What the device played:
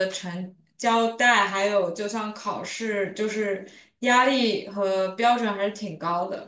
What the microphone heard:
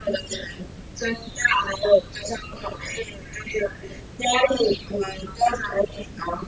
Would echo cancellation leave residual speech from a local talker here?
No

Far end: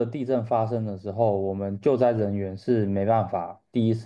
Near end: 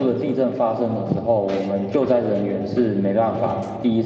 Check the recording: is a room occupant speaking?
No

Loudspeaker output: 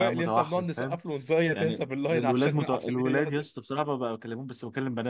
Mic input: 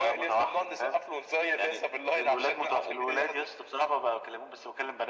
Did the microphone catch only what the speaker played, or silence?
Yes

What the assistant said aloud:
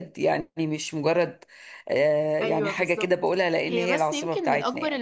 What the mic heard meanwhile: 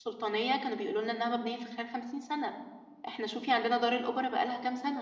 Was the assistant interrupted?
Yes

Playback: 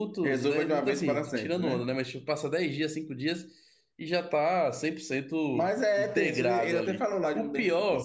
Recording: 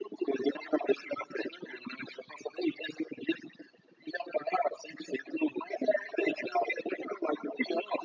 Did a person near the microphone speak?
No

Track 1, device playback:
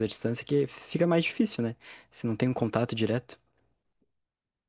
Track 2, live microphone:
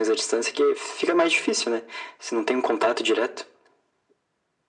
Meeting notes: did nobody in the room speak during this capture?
Yes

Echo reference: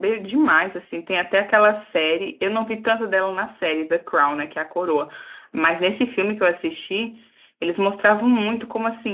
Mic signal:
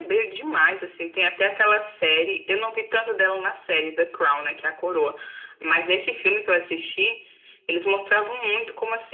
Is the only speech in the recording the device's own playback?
Yes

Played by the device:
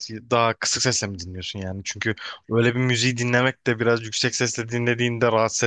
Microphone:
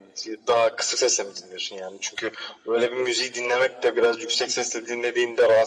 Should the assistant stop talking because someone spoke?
No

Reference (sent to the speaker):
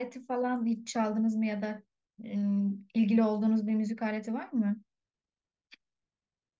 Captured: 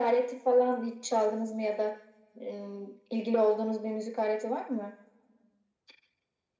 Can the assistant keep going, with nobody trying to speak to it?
Yes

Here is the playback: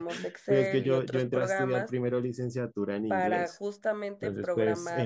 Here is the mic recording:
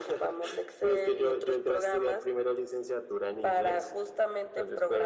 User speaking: No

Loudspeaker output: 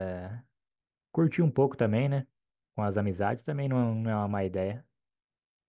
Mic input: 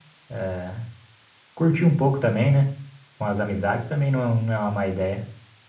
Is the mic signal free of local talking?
Yes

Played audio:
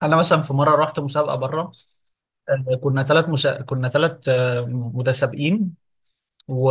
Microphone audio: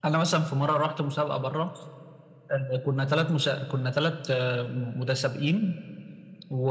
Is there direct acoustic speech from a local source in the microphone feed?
No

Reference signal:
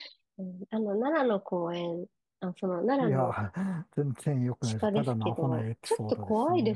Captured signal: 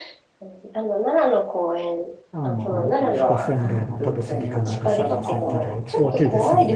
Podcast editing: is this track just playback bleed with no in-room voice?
No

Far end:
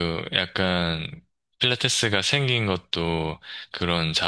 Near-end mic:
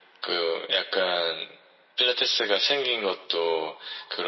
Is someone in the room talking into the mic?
No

